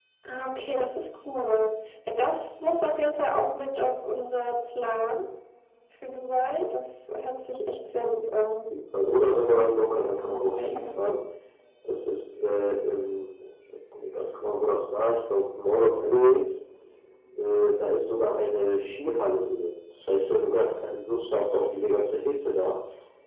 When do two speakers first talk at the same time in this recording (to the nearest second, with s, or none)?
9 s